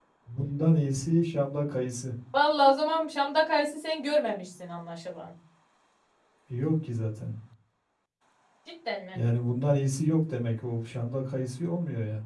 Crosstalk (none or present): none